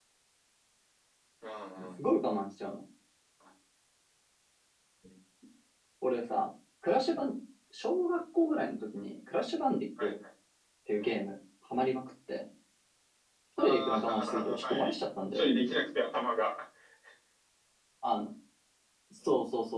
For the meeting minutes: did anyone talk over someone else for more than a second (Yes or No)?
Yes